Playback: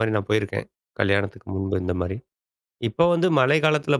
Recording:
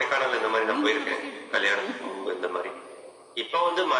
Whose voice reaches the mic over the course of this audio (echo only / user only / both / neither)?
both